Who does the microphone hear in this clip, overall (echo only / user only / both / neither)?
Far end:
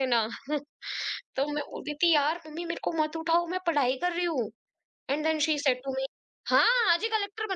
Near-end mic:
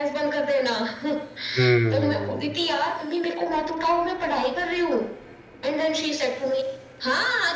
both